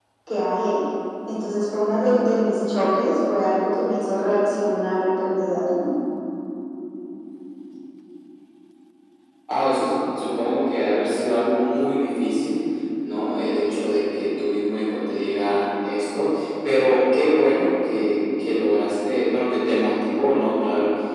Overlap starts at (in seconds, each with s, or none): none